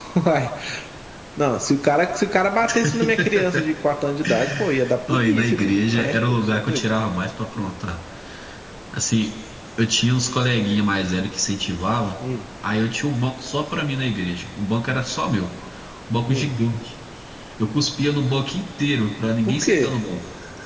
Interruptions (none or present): present